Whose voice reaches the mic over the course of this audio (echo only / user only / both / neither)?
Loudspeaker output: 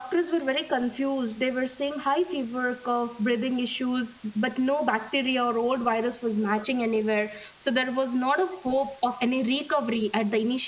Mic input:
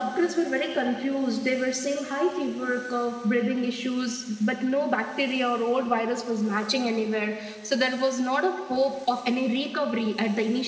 echo only